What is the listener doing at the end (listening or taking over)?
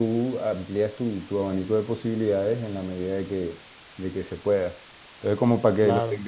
listening